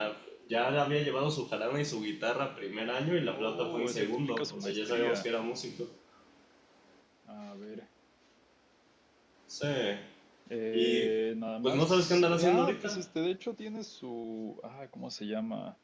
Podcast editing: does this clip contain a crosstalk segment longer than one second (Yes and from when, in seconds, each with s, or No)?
Yes, from 3.3 s